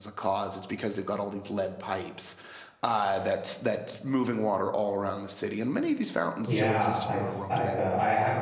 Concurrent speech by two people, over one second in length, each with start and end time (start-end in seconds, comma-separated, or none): 6.5-7.8